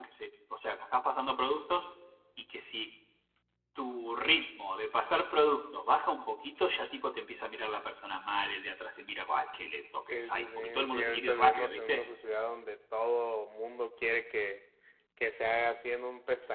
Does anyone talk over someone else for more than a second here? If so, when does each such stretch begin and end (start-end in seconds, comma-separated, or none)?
10.1-12.0